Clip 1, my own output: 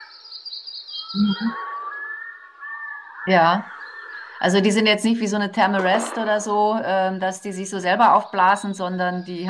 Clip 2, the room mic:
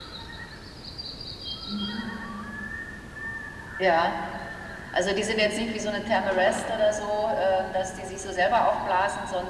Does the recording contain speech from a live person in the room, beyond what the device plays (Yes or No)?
No